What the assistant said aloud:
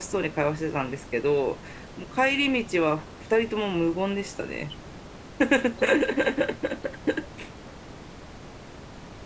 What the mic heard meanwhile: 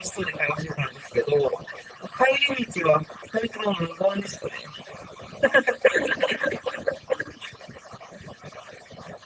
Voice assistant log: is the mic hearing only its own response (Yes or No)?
Yes